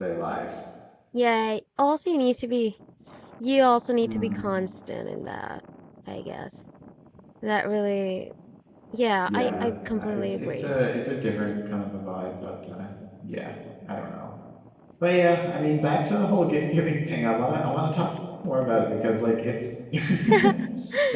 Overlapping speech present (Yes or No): Yes